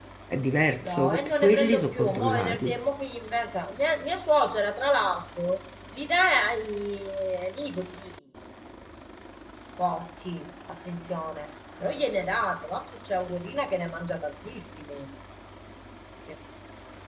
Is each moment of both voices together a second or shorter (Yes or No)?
No